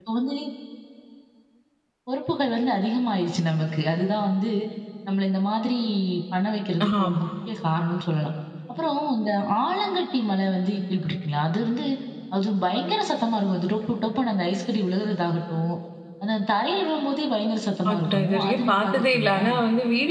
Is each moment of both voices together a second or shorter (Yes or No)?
No